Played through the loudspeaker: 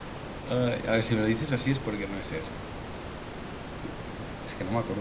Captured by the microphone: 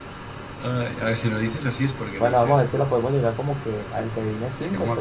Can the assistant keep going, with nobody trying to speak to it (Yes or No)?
No